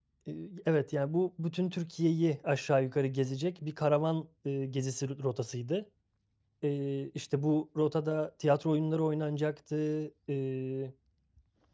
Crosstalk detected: No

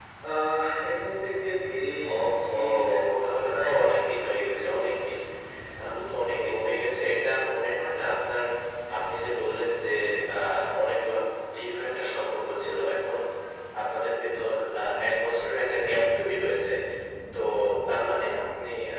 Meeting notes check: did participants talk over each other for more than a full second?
Yes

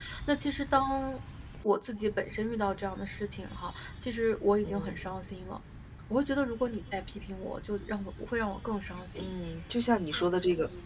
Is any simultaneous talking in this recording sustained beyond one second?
No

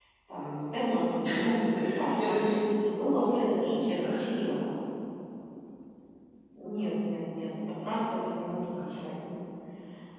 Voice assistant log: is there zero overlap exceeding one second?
No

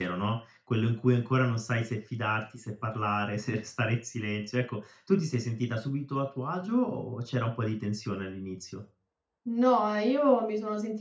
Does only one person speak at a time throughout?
Yes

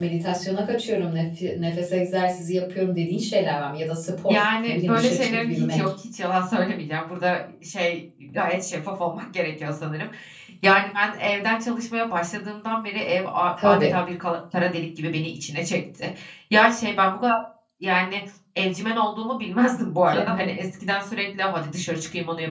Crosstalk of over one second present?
Yes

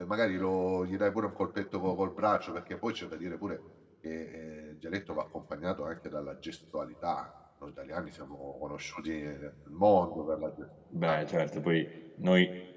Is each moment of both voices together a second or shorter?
Yes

